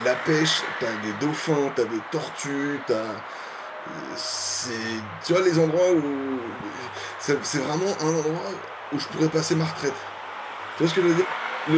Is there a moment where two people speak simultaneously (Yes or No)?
No